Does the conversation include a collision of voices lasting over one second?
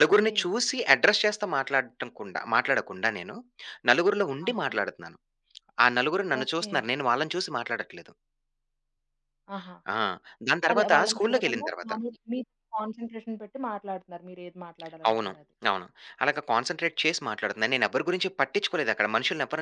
Yes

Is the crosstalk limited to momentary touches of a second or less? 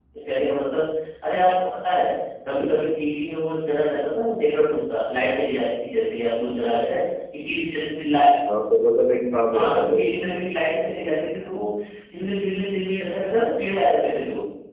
Yes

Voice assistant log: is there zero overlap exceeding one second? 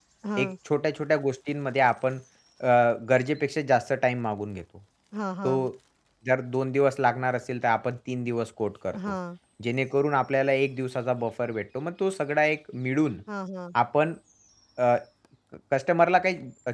Yes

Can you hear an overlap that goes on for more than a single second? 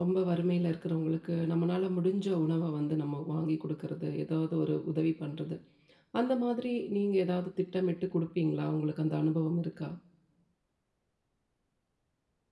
No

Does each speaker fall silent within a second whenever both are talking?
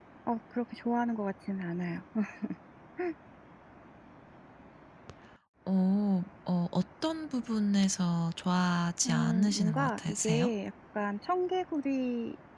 No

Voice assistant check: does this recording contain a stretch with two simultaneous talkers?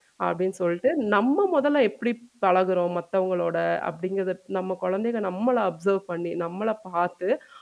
No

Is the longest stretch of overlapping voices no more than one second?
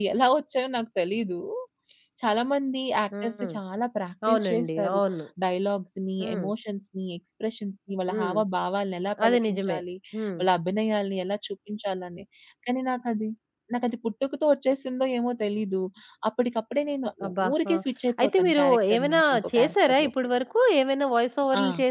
No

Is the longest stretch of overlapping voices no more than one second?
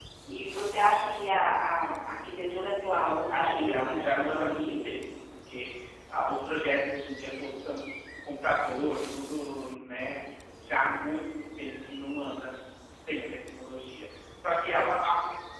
No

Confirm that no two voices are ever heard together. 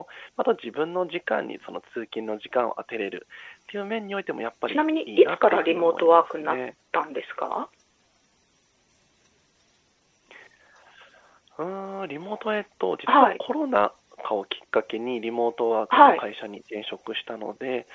No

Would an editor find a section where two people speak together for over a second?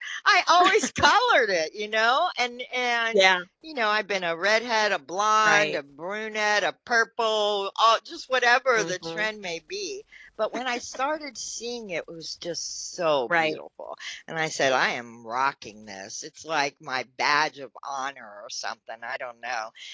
No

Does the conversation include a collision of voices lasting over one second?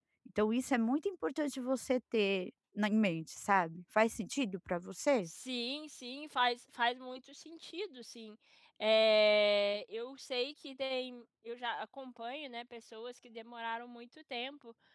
No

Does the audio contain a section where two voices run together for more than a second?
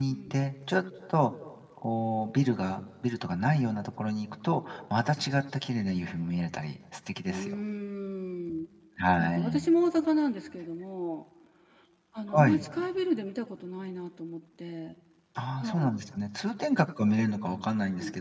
No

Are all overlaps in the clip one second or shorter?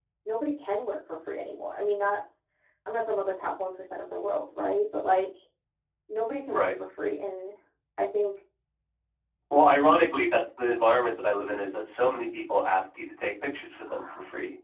Yes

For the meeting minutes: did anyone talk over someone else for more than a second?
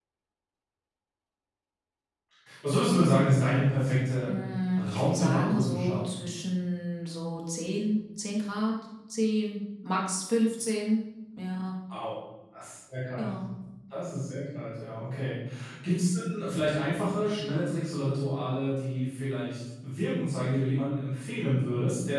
Yes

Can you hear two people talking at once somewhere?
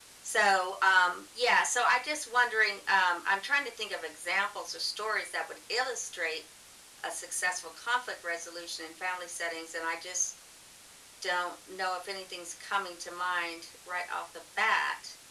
No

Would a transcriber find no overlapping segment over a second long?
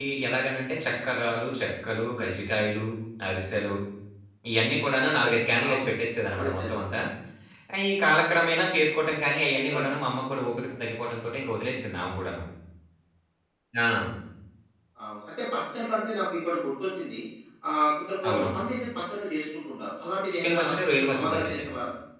Yes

